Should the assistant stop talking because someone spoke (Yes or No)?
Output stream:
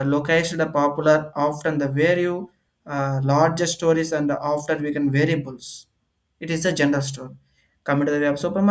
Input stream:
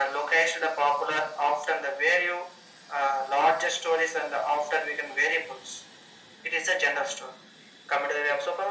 No